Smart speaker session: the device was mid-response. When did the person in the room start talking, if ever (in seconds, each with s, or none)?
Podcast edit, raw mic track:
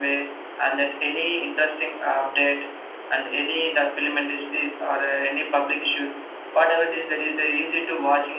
none